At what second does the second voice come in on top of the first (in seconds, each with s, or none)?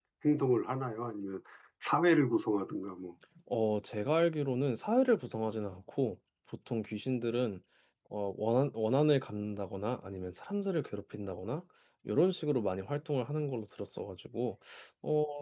none